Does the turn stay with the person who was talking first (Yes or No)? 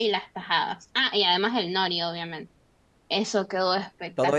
No